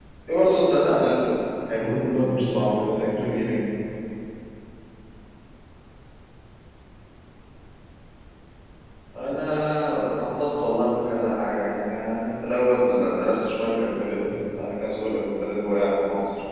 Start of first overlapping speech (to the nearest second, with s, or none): 2 s